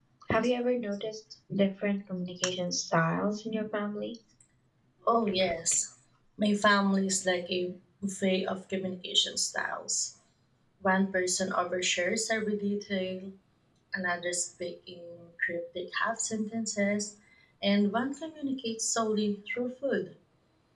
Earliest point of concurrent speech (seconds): none

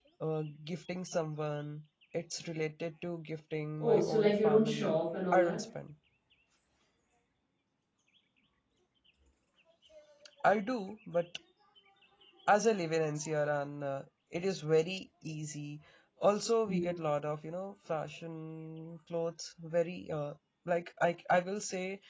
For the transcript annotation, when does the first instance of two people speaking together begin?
3.8 s

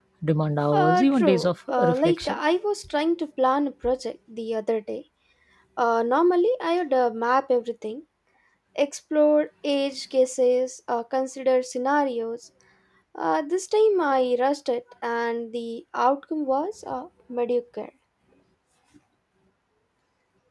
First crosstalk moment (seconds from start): 0.7 s

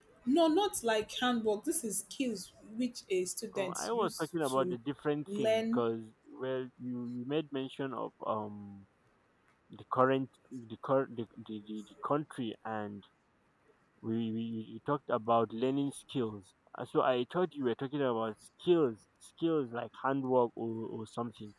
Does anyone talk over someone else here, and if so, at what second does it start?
3.5 s

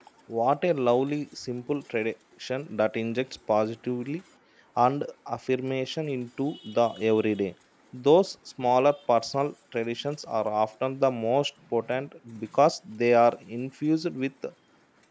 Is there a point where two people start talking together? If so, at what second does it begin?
none

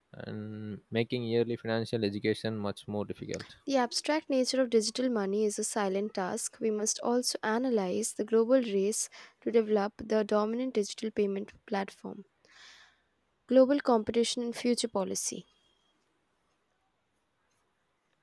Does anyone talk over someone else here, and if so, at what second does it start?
none

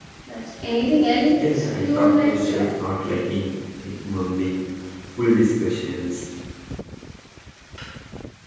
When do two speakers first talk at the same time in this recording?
1.3 s

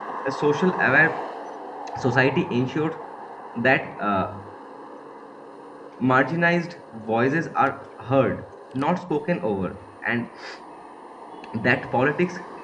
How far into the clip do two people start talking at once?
none

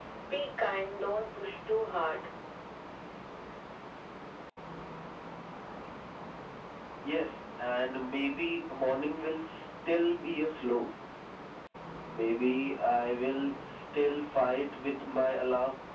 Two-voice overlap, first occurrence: none

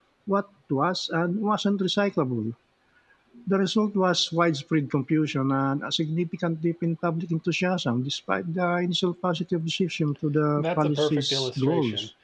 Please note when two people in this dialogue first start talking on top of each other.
10.6 s

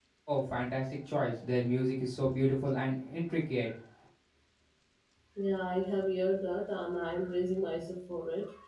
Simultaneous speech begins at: none

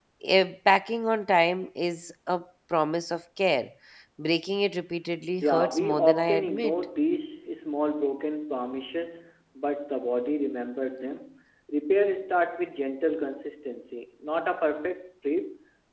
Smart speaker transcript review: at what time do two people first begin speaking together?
5.4 s

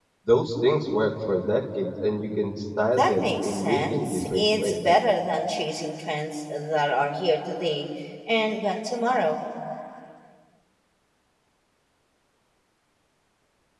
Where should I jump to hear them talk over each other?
3.0 s

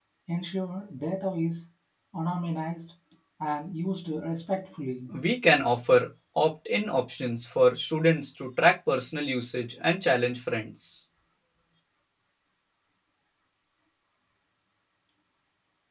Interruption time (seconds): none

